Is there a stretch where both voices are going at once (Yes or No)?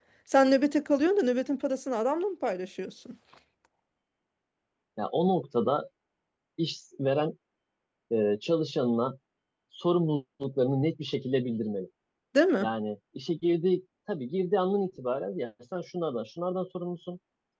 No